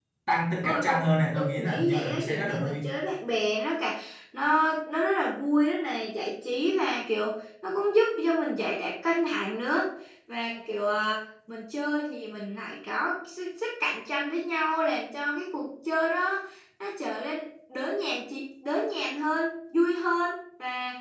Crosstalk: present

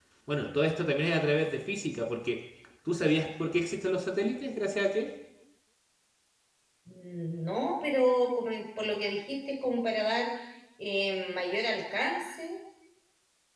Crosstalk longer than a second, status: none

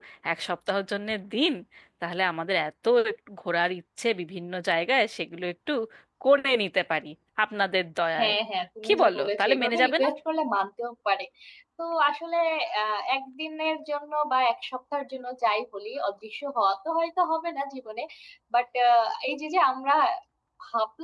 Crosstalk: present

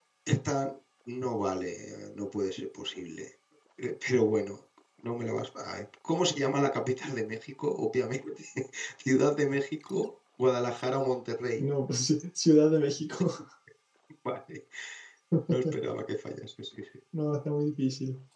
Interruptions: none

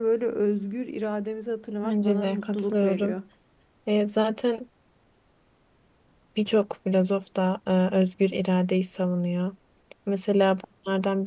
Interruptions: present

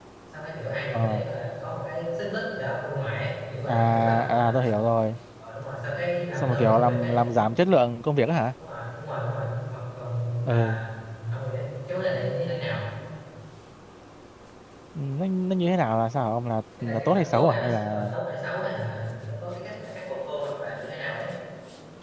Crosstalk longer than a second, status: present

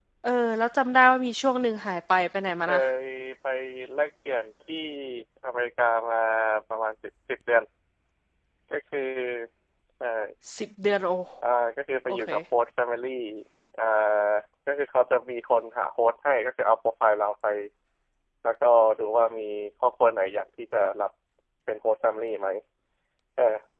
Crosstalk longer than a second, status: none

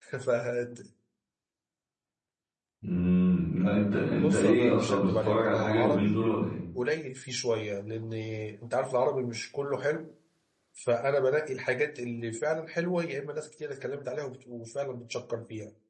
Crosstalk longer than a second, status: present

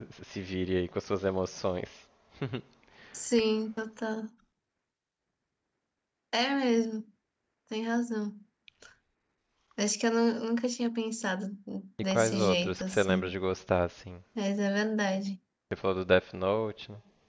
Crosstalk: present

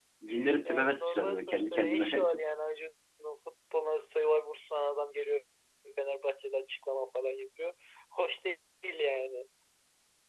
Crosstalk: present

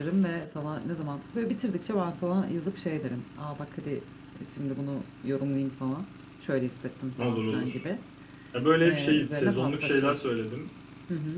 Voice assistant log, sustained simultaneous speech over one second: present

